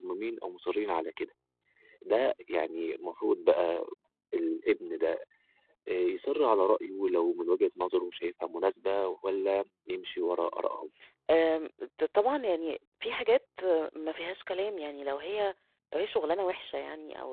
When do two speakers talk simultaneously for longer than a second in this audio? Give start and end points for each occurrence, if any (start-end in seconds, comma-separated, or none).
none